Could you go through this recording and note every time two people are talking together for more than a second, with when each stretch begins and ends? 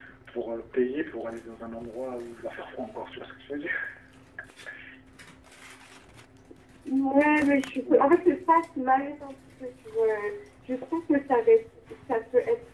none

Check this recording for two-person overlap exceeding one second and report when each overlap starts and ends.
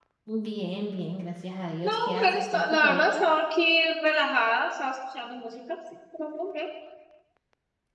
1.8-3.2

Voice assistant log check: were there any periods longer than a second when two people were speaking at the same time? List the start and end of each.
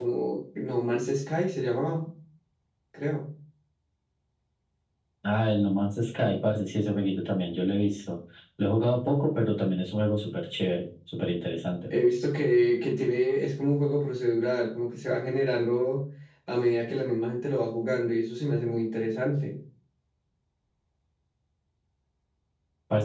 none

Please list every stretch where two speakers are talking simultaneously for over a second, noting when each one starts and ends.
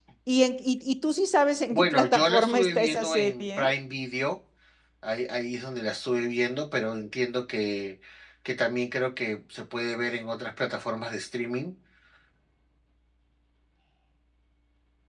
1.7-3.7

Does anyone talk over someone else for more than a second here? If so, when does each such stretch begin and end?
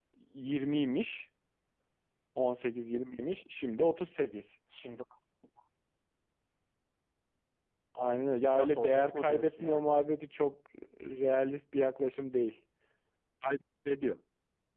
8.5-9.9

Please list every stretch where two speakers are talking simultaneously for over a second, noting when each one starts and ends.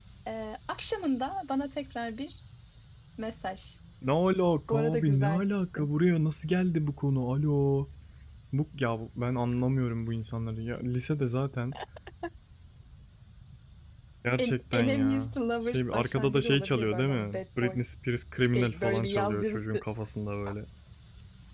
4.7-5.9, 14.4-17.8, 18.6-19.8

